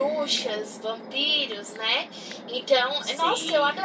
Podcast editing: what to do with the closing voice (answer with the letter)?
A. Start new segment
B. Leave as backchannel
B